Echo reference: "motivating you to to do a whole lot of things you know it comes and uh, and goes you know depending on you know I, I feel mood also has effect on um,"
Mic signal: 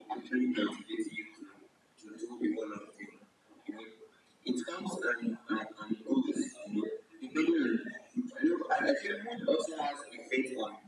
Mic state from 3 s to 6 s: echo only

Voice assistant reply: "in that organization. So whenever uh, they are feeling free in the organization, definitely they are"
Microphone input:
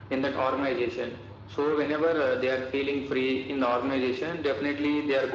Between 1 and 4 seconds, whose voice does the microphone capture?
echo only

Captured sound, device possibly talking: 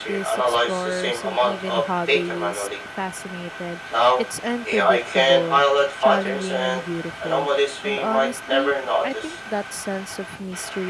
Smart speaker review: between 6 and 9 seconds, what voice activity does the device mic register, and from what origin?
both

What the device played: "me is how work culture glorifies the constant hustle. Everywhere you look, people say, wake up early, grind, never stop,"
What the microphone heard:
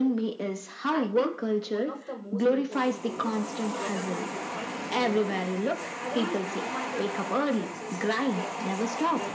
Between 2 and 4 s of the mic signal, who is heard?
both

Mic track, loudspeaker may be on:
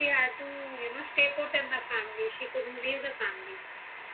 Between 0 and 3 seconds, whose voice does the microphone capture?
echo only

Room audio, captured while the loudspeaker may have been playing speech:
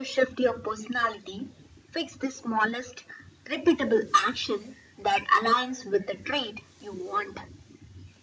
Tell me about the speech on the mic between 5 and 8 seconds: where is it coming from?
echo only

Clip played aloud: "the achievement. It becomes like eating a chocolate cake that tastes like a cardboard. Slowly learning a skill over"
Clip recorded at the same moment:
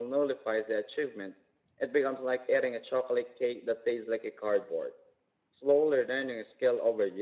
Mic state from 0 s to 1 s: echo only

